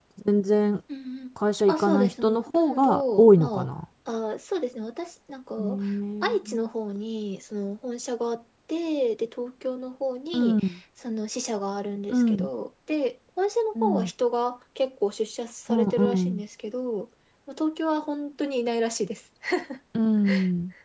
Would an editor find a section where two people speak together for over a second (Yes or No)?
Yes